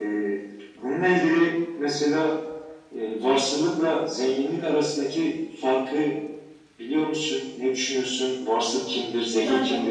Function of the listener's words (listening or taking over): taking over